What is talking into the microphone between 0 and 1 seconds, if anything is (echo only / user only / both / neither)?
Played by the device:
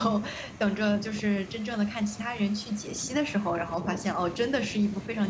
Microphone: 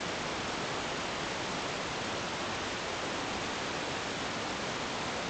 neither